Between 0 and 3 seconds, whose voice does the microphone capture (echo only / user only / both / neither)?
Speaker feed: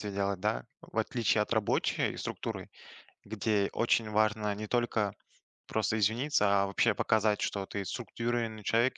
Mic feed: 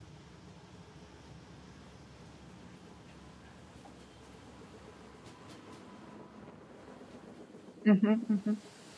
neither